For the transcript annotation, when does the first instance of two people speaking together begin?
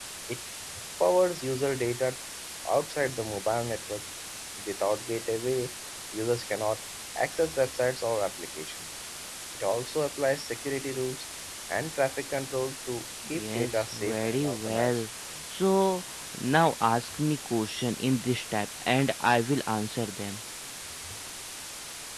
13 s

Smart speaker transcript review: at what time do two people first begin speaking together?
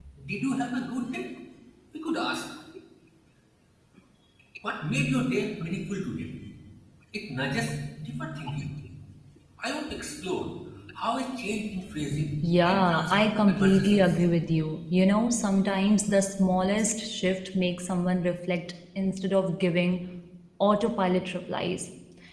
12 s

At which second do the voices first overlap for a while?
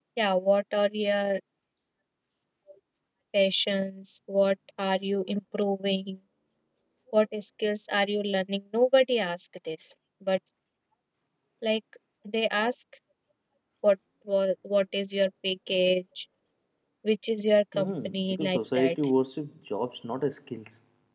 18 s

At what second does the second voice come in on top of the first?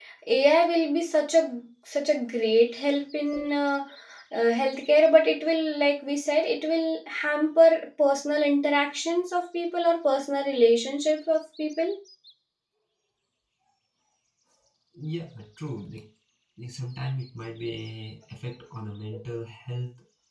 none

